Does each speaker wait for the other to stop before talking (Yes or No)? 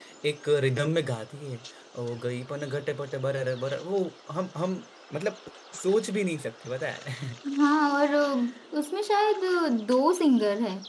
Yes